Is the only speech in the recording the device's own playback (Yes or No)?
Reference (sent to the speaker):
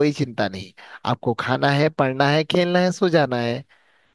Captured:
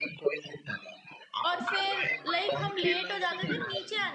No